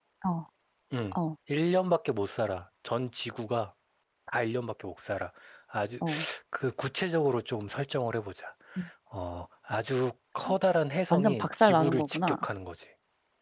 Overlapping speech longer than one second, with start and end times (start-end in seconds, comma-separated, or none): 11.1-12.5